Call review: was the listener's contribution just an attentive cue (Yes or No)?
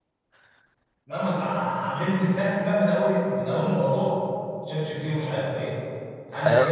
No